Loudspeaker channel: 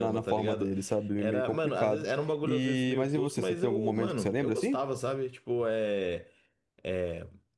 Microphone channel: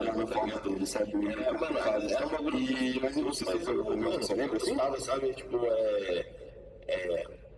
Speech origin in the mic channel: echo only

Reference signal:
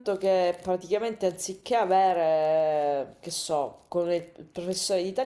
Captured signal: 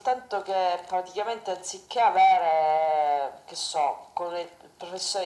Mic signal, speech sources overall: echo only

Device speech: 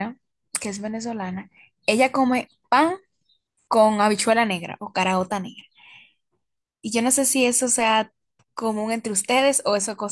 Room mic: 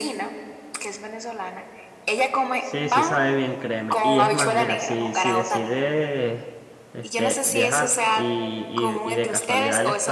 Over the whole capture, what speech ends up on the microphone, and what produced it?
both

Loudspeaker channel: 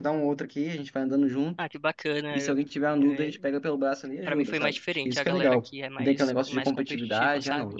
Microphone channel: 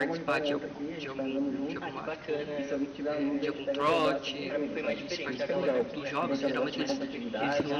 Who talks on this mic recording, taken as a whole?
both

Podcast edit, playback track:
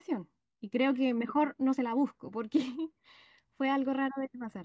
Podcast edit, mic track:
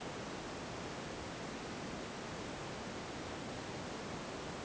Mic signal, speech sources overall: neither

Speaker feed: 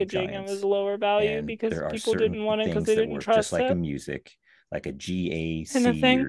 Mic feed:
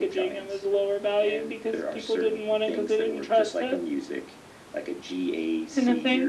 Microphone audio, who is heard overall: echo only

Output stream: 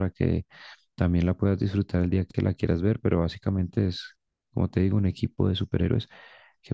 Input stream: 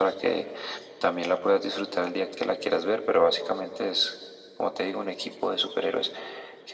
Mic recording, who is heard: echo only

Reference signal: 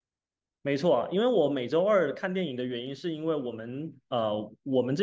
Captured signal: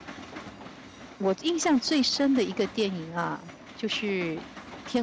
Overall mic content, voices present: user only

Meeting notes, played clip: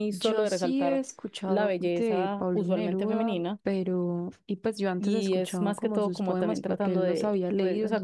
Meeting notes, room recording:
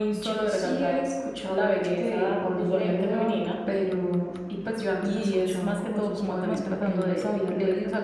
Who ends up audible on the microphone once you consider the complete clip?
echo only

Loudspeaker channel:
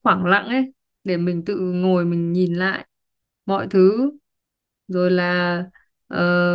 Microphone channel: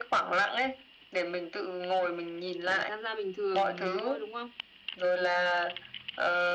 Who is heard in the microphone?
both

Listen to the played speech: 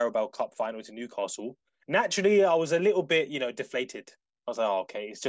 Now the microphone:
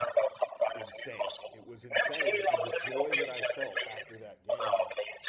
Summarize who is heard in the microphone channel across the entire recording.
both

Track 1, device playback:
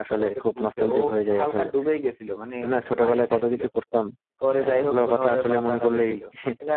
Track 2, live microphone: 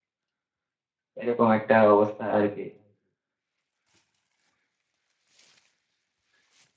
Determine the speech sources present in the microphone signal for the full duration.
user only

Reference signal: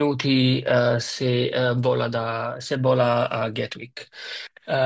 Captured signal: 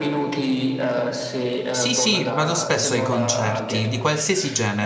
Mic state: both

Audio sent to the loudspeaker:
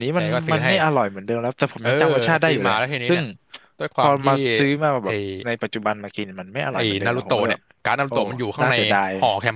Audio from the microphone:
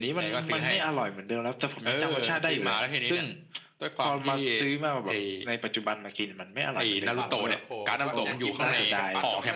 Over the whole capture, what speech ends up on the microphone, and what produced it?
both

